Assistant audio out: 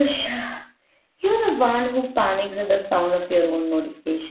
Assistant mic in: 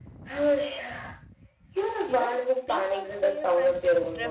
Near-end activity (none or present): present